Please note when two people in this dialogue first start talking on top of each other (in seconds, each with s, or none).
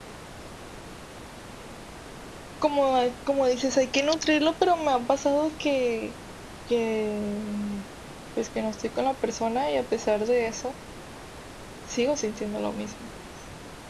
none